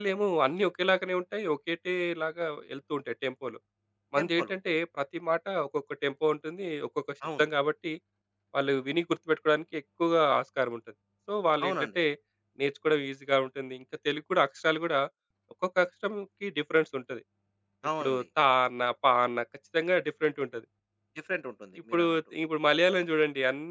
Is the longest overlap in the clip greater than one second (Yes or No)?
No